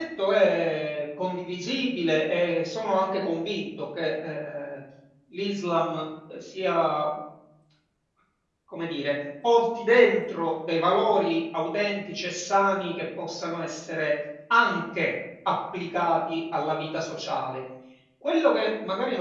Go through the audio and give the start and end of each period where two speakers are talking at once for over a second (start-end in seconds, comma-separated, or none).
none